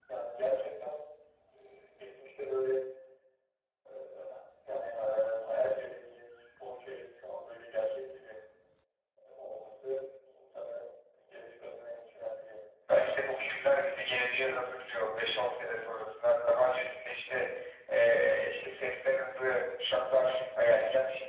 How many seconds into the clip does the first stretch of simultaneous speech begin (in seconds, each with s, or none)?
none